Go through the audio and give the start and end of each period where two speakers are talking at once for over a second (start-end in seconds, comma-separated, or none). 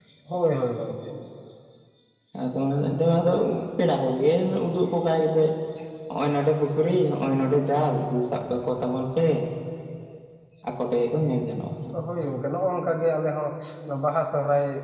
none